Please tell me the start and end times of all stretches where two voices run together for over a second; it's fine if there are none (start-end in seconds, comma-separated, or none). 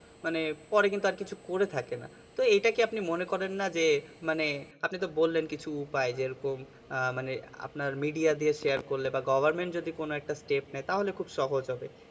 none